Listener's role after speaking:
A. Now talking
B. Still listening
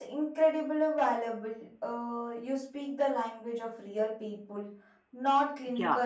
A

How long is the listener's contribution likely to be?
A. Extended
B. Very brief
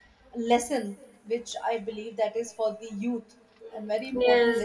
A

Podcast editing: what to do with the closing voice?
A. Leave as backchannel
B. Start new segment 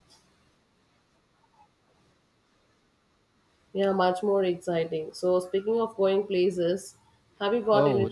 B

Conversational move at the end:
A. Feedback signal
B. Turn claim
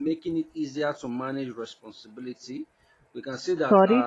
B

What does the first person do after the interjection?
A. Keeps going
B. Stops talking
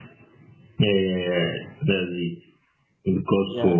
A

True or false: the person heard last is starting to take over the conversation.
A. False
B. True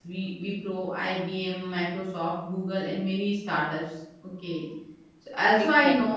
A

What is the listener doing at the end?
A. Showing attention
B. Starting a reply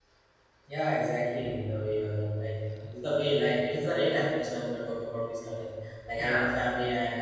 A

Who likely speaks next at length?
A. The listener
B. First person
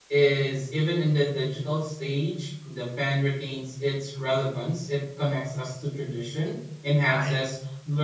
B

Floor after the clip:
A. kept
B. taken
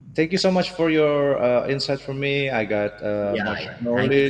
B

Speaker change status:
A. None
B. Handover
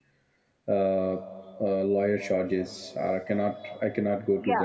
B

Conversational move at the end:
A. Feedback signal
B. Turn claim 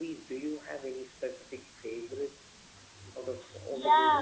B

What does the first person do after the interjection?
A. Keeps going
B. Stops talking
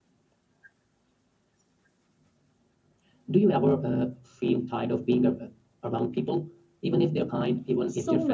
B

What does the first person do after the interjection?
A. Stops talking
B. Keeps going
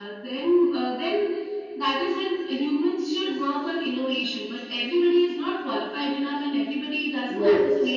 B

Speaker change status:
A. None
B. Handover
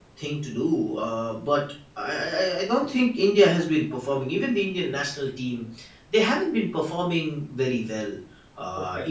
A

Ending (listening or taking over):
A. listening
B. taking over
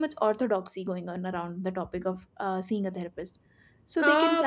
B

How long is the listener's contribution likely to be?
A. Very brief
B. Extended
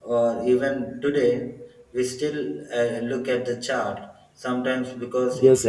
B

